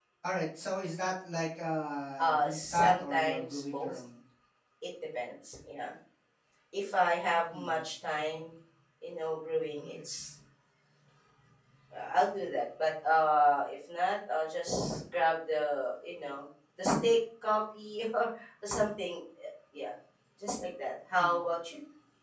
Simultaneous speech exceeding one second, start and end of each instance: 2.2-4.0

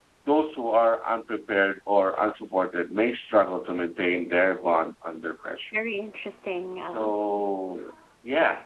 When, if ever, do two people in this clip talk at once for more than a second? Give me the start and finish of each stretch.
none

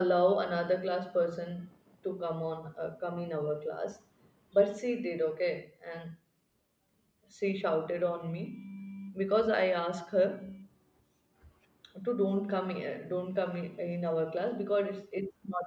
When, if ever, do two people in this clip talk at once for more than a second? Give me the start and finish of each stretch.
none

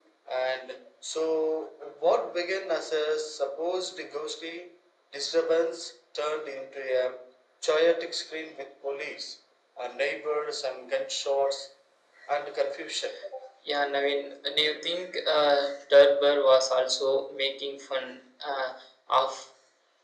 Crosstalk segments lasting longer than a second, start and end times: none

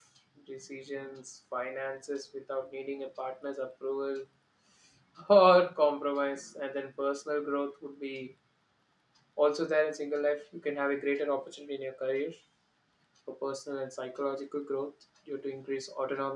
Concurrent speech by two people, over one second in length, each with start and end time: none

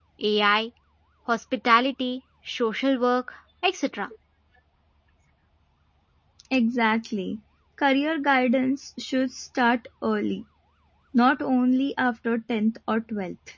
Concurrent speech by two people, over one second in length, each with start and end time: none

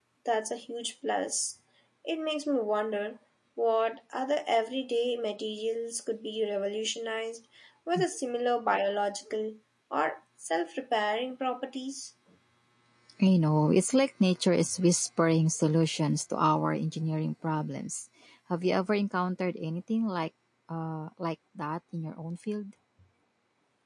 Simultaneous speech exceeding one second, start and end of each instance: none

